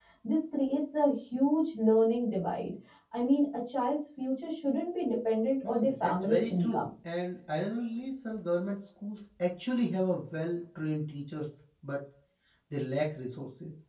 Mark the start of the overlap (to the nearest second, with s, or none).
6 s